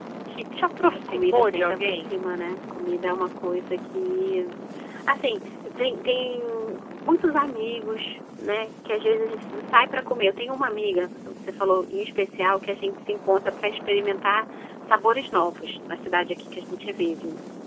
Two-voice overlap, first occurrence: 1 s

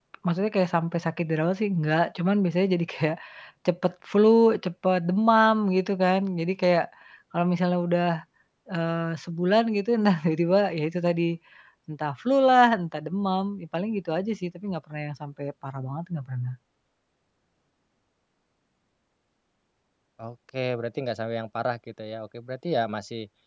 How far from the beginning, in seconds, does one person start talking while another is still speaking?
none

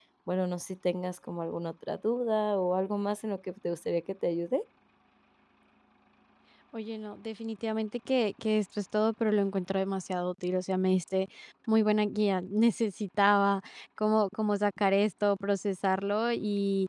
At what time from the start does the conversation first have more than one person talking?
none

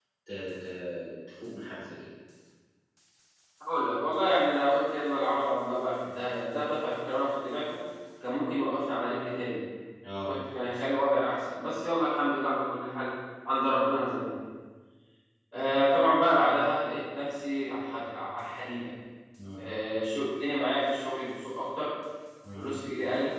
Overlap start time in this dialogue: none

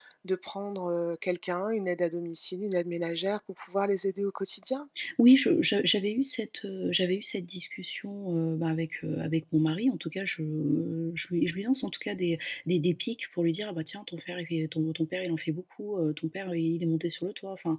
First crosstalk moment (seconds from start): none

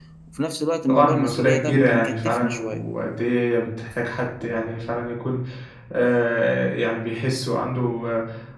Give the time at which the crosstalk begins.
1 s

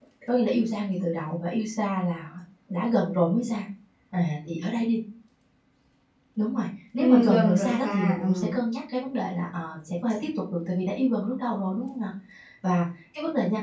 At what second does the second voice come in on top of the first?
7 s

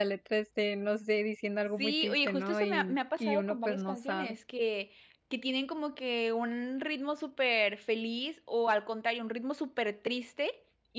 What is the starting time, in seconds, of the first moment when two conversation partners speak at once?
2 s

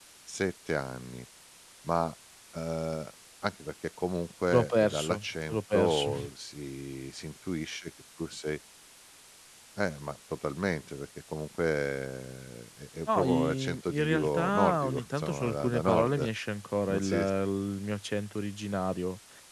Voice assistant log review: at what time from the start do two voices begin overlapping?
5 s

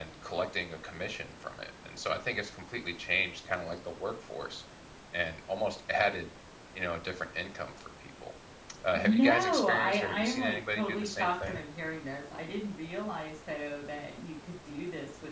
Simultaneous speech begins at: 9 s

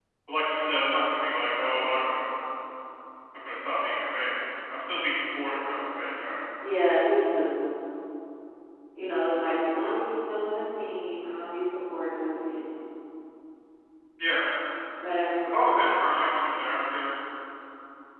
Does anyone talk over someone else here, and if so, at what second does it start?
none

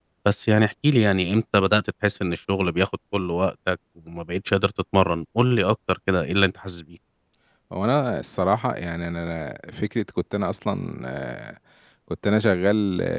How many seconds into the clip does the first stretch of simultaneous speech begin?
none

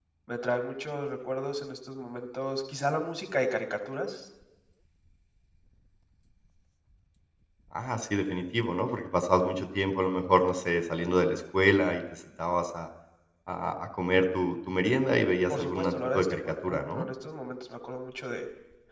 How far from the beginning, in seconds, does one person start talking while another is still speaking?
16 s

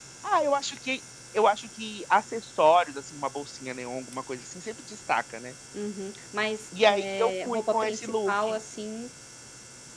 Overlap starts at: 7 s

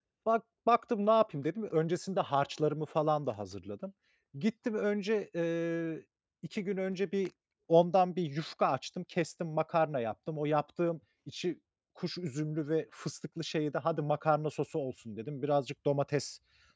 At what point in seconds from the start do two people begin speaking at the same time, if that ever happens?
none

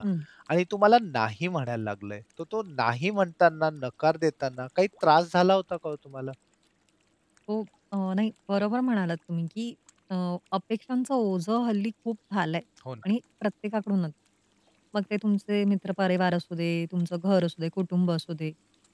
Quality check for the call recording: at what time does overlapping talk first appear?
none

